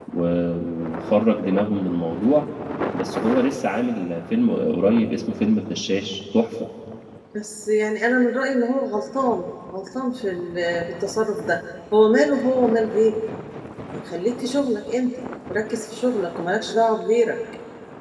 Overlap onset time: none

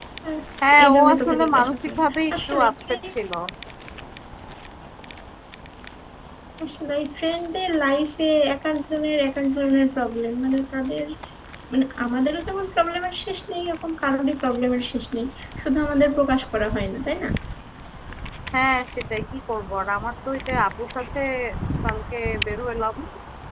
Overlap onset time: 1 s

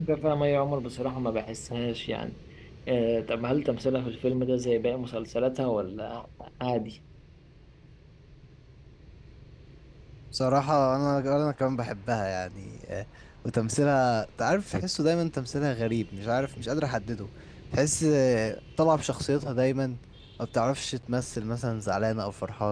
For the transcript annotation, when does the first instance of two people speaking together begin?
none

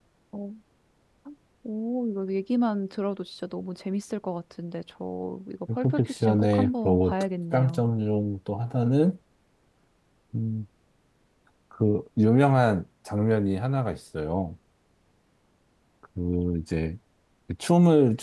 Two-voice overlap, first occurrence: 6 s

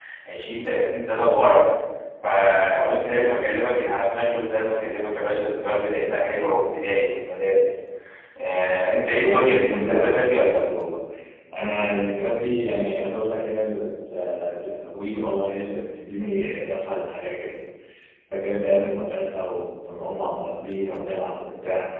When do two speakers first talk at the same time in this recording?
9 s

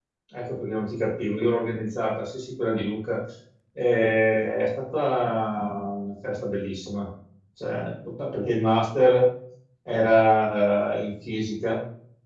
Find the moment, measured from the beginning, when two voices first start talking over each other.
none

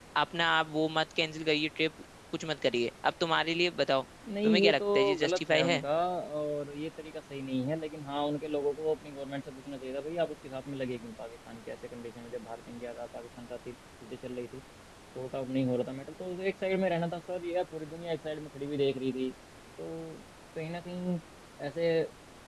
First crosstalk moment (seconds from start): 4 s

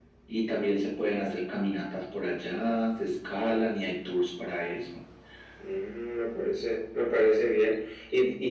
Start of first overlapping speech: none

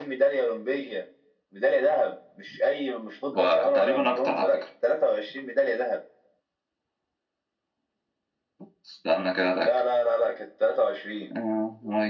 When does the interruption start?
3 s

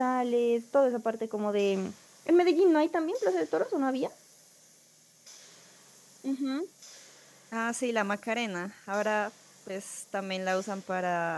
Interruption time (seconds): none

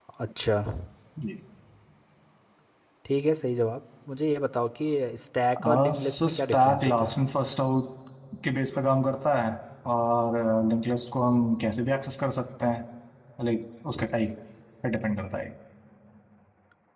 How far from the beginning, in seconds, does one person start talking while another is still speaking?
6 s

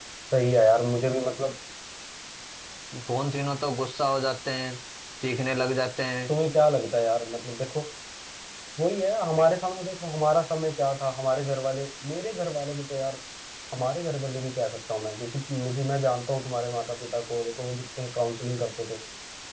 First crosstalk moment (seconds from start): none

